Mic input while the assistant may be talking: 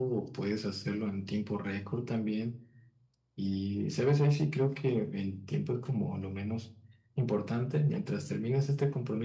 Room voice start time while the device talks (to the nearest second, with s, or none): none